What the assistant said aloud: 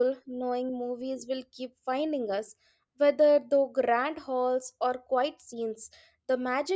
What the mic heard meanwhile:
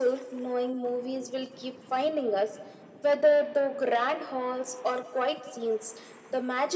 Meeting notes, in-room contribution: none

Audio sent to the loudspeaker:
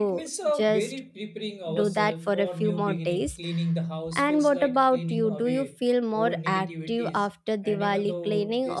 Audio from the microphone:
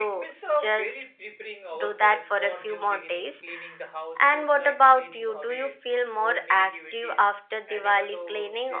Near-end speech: none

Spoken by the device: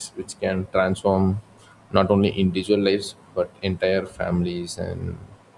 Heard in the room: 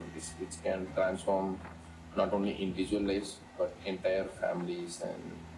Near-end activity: none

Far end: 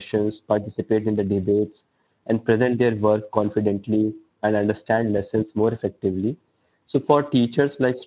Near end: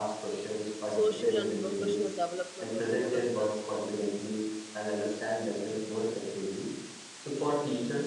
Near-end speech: present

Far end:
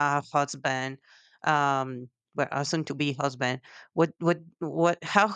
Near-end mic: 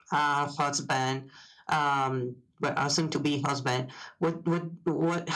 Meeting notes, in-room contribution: none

